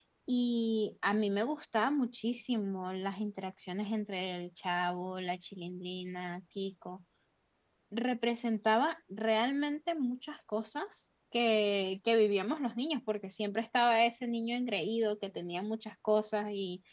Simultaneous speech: No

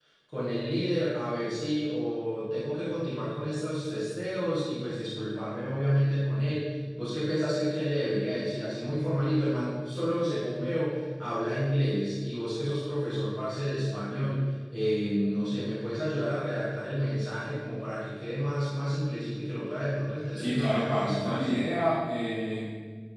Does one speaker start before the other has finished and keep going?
Yes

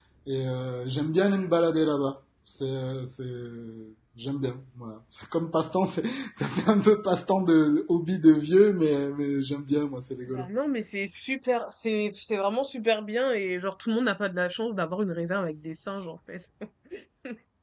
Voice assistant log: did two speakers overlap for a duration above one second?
No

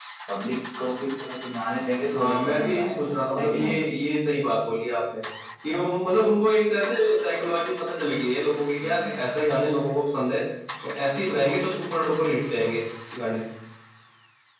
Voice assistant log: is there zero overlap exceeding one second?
No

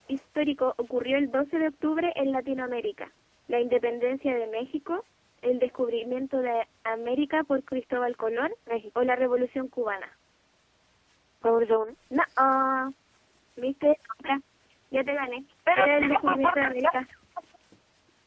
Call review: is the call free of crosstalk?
No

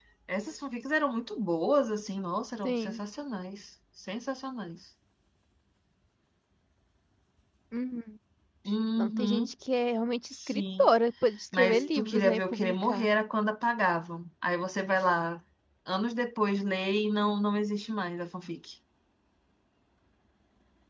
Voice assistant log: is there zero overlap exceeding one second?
No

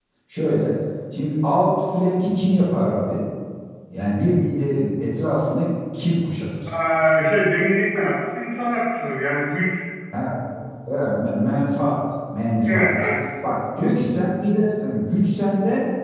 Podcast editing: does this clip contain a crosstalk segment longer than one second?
No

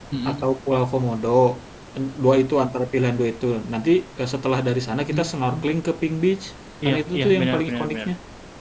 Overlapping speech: Yes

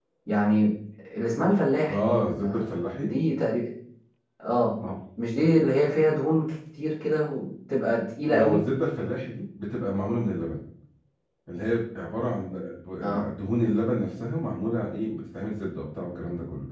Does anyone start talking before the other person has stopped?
Yes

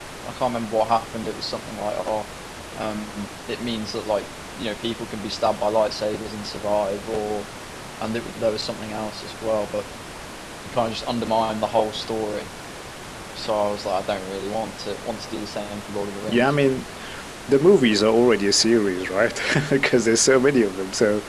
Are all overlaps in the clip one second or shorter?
Yes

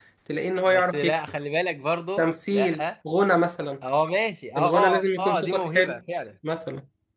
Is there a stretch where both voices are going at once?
Yes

